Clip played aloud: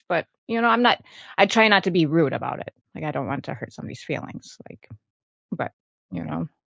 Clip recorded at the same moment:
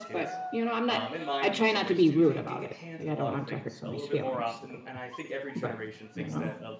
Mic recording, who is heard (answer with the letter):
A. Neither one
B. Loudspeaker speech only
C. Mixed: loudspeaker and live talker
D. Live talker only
C